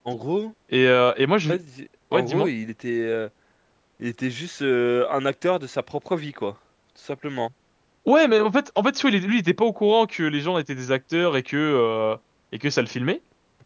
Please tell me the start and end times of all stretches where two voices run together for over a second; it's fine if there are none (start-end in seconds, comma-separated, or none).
none